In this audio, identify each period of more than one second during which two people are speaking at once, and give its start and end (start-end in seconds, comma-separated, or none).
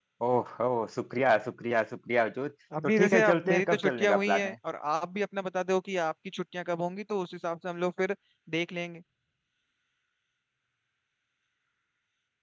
2.8-4.5